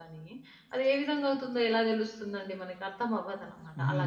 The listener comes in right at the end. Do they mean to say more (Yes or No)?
Yes